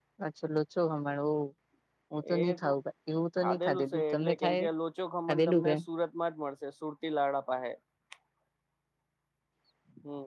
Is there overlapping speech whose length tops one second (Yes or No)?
Yes